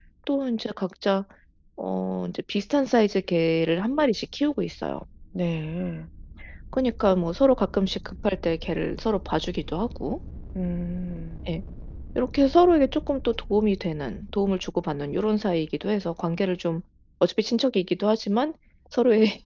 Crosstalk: none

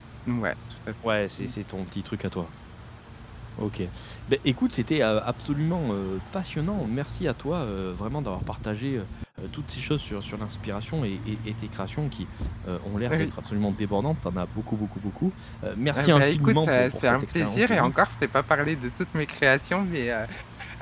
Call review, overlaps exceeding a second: present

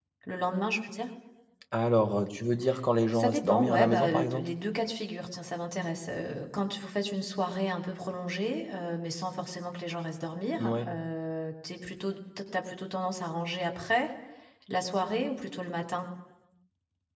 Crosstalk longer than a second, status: present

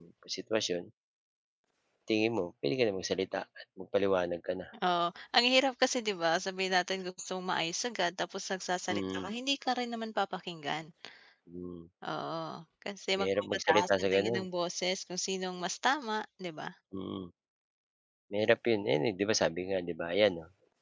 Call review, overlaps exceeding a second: present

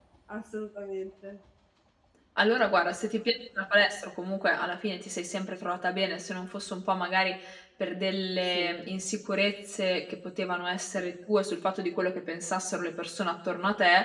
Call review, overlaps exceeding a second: none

